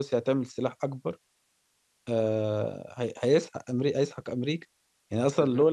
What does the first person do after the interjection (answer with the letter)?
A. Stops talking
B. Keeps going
B